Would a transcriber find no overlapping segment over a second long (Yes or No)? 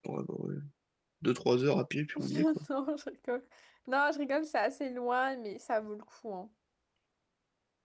Yes